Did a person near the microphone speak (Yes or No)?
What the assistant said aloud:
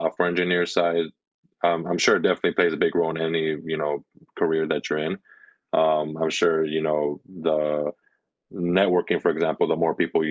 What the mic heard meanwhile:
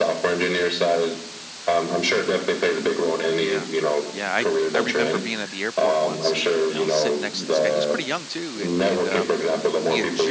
Yes